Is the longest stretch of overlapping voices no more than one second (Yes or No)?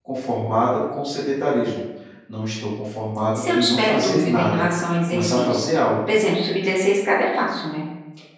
No